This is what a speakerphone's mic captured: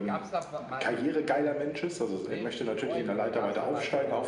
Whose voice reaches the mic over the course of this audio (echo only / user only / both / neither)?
both